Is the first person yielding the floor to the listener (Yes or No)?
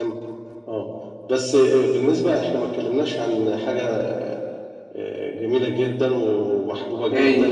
No